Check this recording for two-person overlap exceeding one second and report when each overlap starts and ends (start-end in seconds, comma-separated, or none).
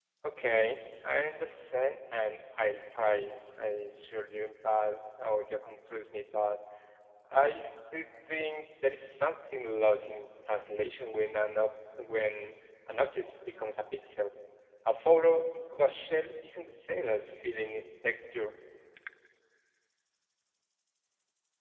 none